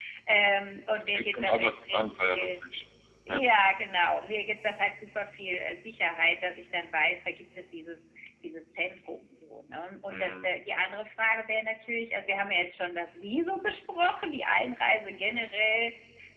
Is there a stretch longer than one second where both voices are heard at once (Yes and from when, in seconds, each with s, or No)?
Yes, from 1.1 s